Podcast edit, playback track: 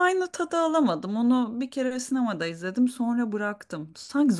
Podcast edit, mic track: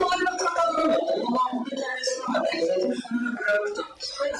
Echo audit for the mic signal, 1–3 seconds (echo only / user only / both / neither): echo only